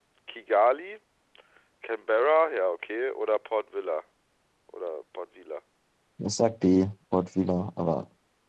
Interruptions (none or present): none